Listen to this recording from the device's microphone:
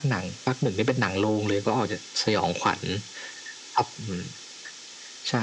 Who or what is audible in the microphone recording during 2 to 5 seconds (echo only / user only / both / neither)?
echo only